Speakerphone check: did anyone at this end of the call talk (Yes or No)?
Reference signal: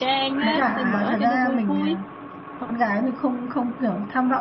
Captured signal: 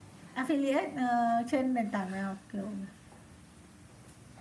Yes